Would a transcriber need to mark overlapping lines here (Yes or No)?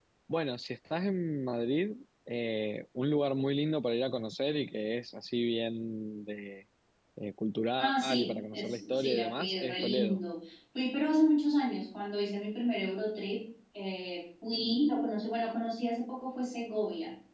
Yes